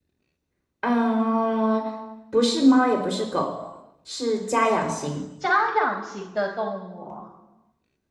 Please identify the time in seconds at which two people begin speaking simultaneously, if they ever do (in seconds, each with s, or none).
none